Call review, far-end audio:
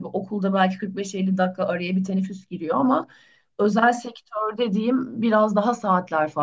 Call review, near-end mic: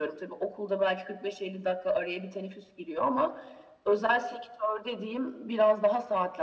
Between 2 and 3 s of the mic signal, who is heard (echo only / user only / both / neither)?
echo only